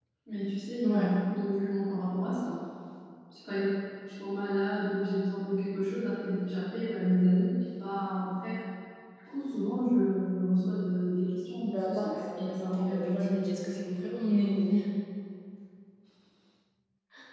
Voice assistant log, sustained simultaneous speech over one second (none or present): present